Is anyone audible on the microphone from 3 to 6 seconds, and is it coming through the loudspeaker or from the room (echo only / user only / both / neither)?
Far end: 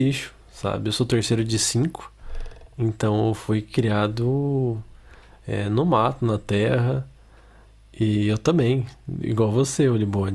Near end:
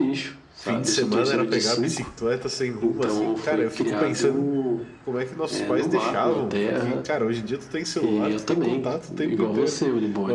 both